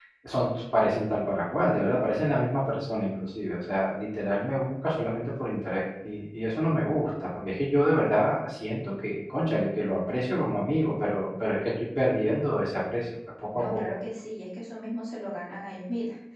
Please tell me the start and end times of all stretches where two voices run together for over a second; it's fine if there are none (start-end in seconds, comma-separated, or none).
none